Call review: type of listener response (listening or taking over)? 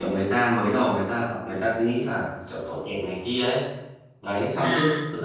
listening